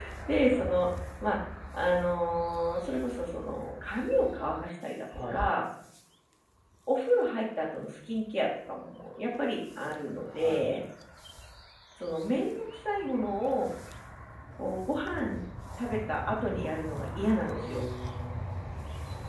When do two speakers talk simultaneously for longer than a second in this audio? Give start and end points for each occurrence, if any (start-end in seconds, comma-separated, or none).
none